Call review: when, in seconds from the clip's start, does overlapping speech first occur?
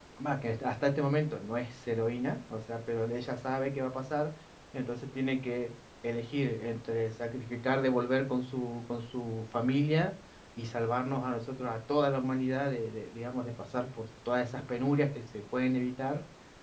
none

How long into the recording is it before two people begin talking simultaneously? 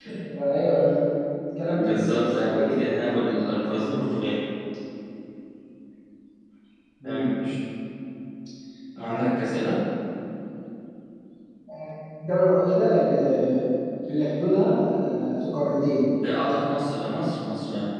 1.7 s

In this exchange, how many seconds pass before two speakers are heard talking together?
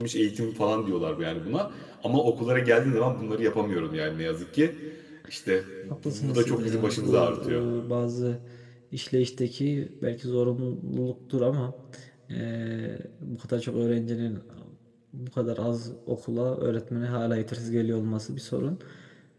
6.0 s

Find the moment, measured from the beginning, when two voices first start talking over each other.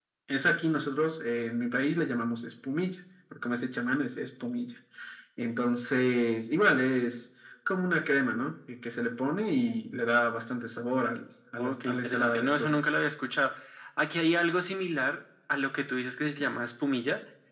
11.6 s

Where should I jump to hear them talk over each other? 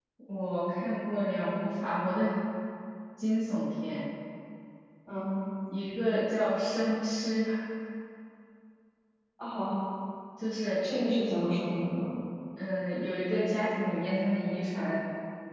none

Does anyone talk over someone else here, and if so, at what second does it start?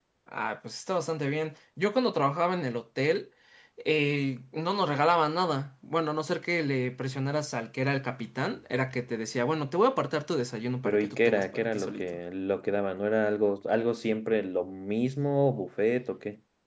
10.8 s

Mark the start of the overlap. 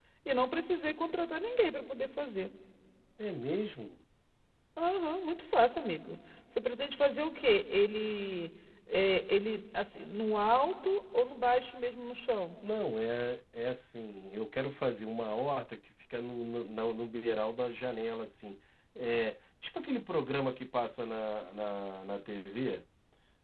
none

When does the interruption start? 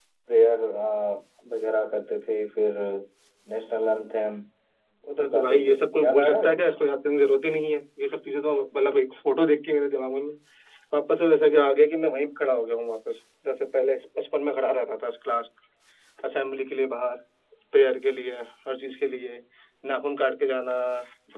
5.2 s

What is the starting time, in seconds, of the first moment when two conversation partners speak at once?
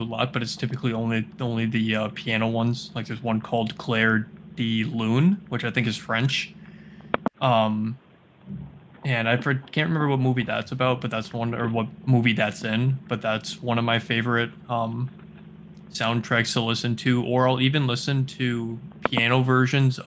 none

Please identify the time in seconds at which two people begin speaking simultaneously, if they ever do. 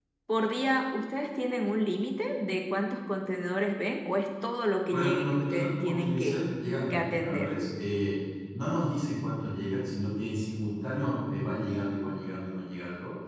4.9 s

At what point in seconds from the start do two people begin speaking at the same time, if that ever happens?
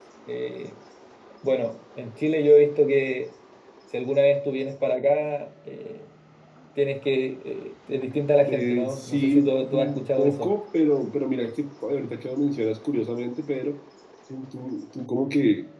8.5 s

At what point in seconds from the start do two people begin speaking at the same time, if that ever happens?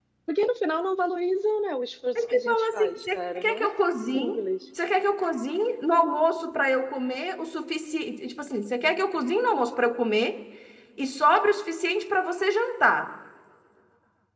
2.1 s

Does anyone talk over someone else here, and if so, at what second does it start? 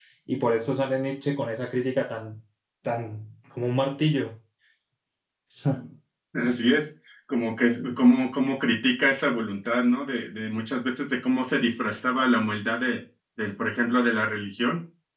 none

